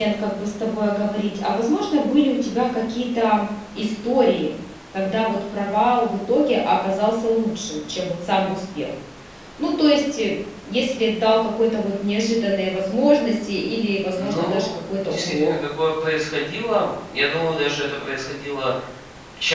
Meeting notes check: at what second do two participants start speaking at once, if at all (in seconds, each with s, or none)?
14.1 s